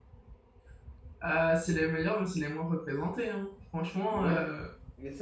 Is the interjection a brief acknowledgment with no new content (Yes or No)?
No